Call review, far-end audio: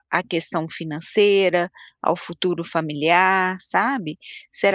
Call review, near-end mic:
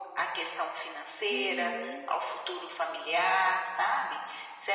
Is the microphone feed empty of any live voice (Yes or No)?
No